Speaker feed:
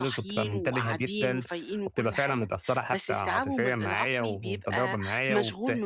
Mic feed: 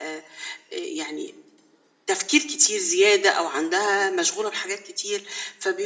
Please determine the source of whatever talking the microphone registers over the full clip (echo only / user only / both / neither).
user only